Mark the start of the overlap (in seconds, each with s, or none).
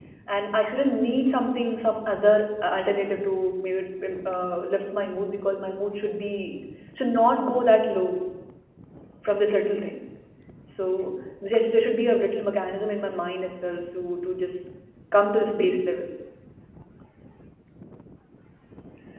none